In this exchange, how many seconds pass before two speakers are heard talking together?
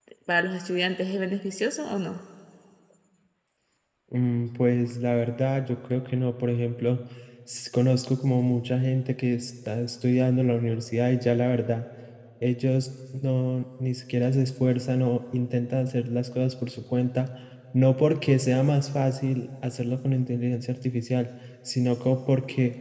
none

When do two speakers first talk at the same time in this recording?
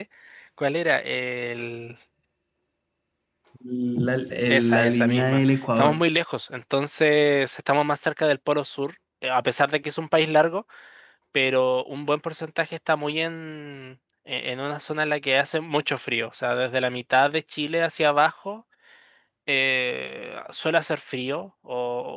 4.5 s

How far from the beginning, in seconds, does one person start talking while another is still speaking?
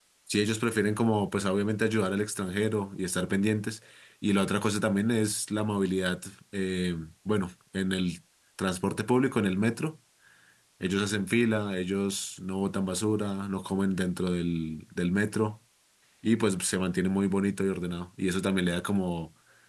none

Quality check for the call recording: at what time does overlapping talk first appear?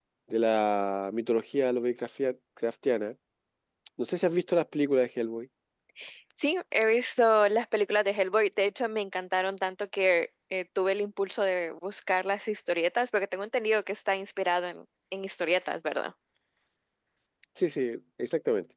none

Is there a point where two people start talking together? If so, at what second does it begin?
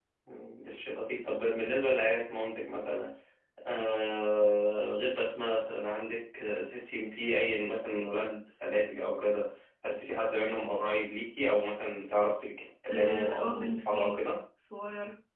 12.9 s

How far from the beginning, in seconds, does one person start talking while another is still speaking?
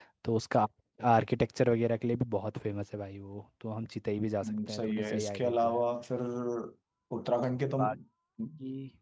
4.4 s

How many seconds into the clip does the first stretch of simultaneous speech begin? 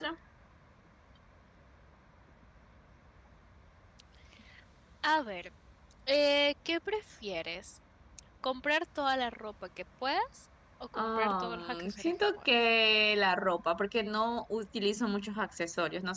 10.9 s

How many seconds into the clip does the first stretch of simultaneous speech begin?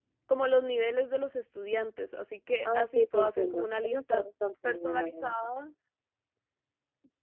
2.6 s

